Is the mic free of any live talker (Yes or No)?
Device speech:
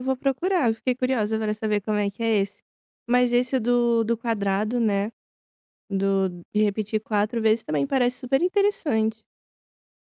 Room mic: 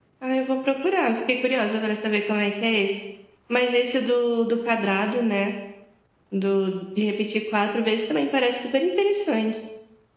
Yes